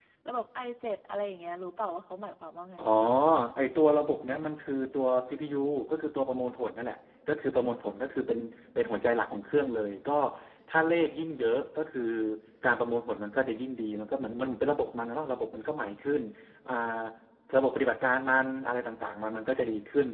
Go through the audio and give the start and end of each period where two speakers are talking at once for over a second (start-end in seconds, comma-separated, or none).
none